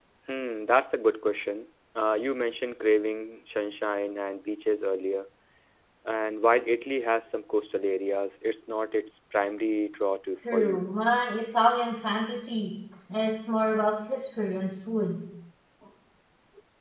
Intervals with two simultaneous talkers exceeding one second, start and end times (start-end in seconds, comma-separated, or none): none